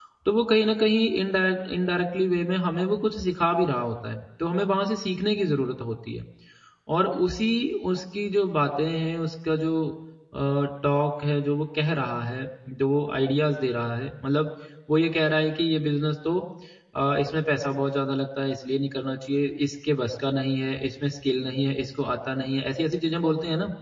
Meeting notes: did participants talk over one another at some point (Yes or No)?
No